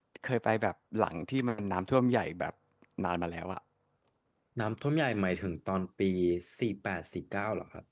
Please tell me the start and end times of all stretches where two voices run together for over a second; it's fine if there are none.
none

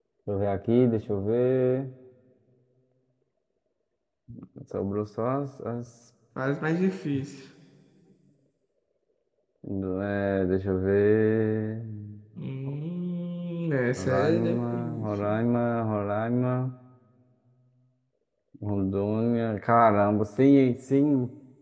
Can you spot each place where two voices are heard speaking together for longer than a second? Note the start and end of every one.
14.0-15.4

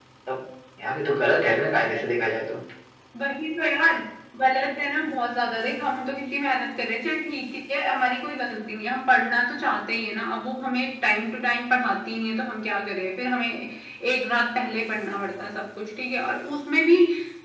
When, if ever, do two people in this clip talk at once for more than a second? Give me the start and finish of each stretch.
none

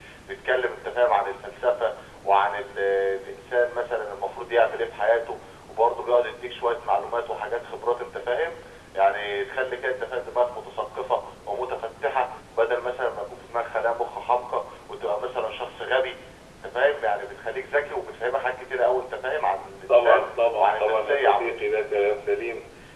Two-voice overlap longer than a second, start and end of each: 19.9-21.6

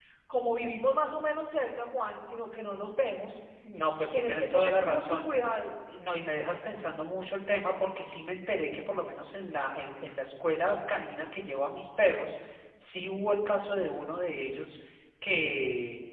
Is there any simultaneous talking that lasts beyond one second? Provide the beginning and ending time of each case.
4.1-5.3

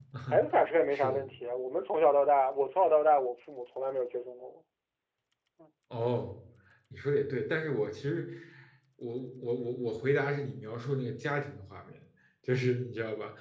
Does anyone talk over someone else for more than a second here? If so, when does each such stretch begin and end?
none

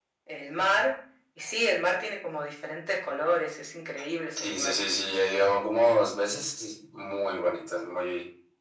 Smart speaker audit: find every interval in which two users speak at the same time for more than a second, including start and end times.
none

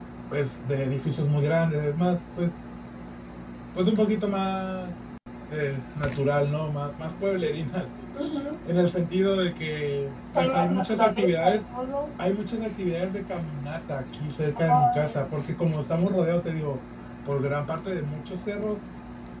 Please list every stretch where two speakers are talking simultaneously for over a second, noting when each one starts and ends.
10.3-11.6

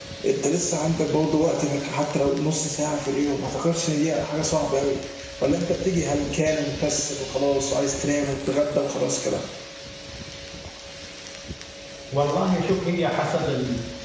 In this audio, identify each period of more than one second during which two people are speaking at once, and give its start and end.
none

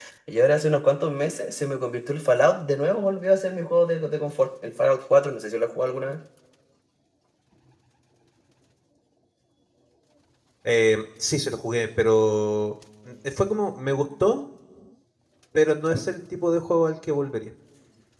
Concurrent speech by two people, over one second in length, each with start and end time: none

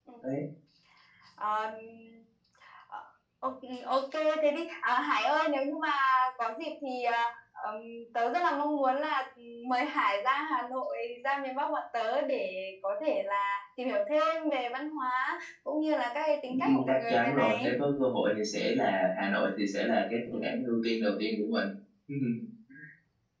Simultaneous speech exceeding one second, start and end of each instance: 16.5-17.7

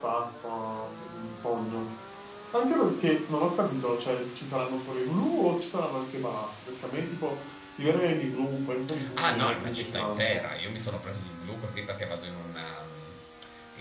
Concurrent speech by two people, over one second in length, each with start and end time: 9.1-10.4

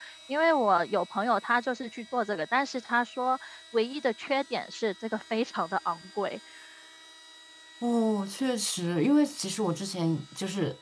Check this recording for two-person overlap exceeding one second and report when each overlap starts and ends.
none

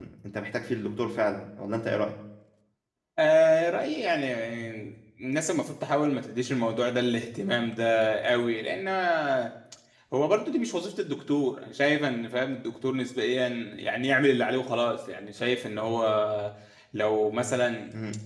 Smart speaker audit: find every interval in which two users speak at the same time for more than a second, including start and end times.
none

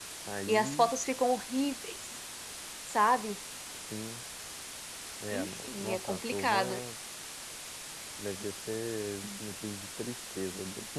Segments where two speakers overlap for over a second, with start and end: 5.3-6.8

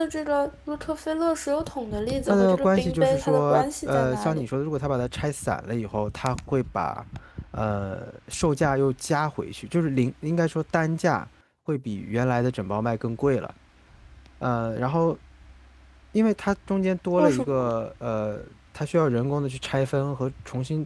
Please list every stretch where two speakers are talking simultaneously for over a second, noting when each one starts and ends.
2.3-4.4

